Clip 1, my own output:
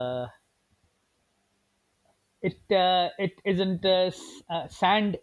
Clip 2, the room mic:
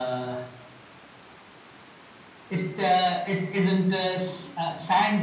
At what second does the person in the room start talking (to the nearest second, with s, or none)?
none